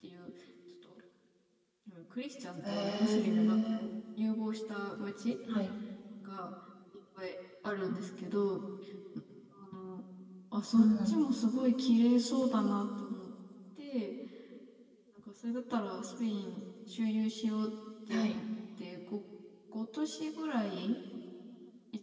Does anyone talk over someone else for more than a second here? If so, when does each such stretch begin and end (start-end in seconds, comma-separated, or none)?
2.6-3.9